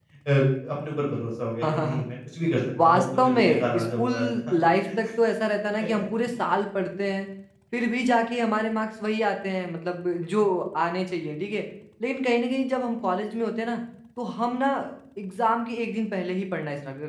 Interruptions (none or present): present